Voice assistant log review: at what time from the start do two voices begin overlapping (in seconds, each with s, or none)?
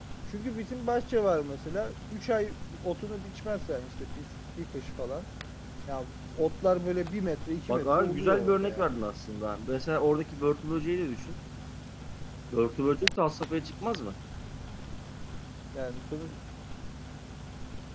7.7 s